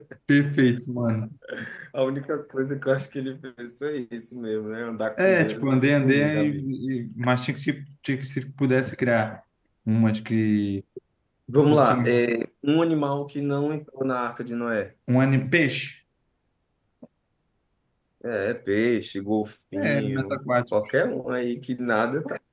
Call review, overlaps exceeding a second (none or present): present